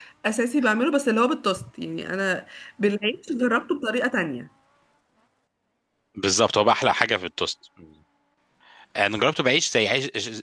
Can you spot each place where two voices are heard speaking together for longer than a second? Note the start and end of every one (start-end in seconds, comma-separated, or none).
none